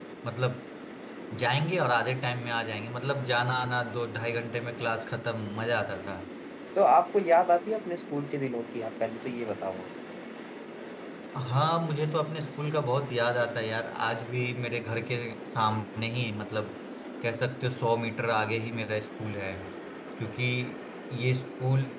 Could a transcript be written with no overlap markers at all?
Yes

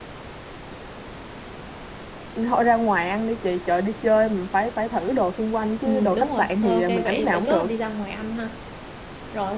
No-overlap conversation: No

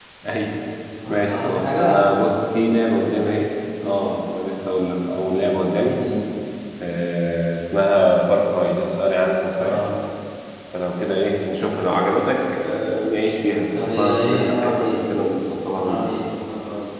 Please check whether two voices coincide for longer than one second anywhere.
Yes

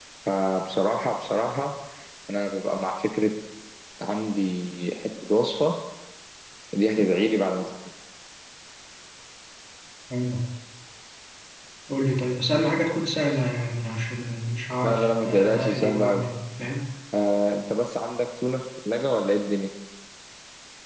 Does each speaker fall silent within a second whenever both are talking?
No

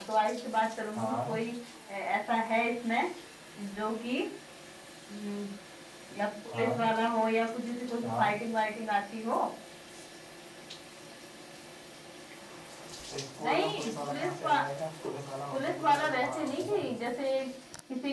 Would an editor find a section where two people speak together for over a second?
Yes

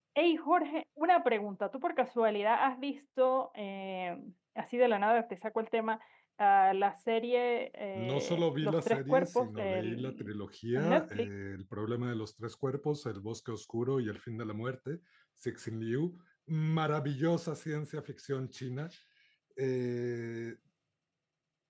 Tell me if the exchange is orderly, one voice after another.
No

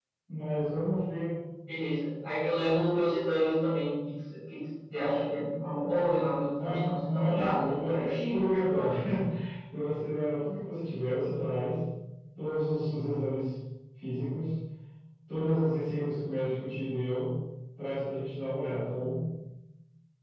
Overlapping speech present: Yes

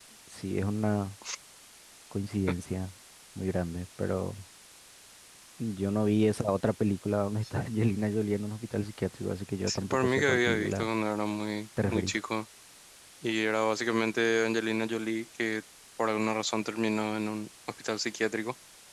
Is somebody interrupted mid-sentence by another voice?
Yes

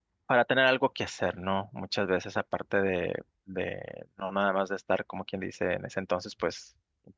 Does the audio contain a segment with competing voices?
No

